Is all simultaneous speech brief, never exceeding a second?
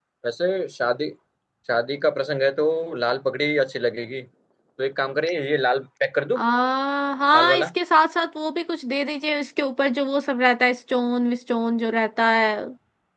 Yes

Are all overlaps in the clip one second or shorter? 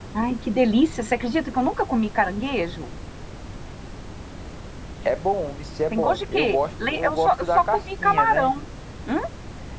No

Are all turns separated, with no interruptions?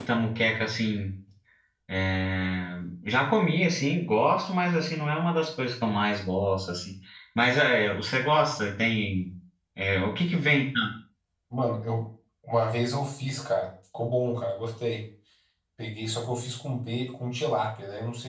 Yes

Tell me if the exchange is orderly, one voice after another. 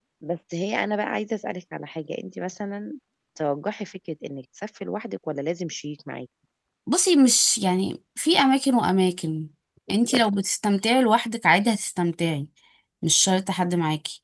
Yes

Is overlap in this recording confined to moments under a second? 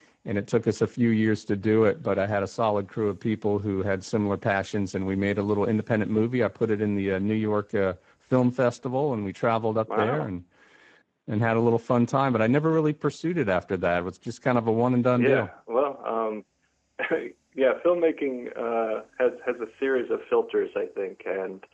Yes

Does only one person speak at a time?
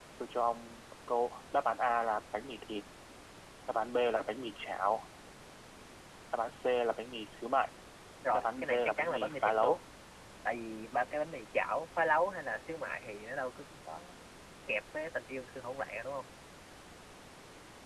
No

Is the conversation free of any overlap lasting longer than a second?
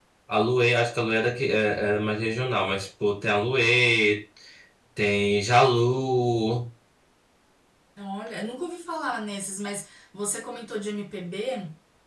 Yes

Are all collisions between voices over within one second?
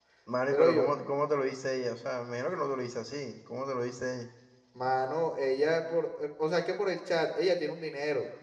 Yes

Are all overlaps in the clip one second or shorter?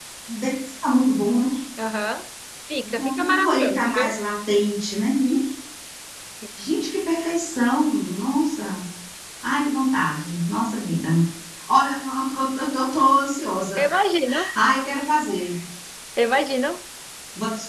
No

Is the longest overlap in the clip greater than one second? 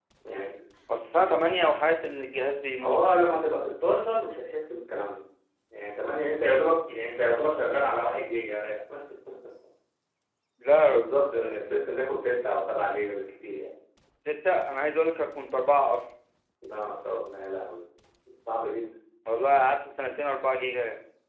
No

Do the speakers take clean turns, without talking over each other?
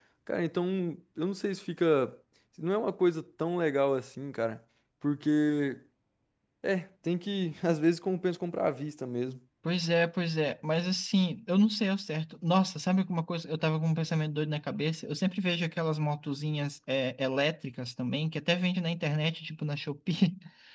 Yes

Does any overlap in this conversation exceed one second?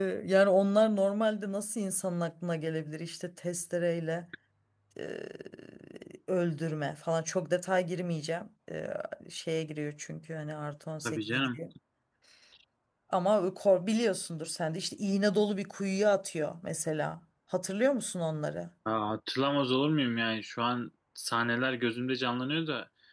No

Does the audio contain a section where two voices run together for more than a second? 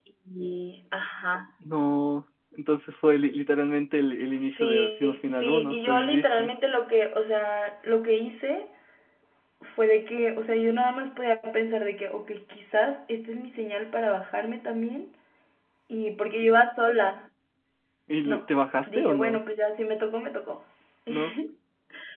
Yes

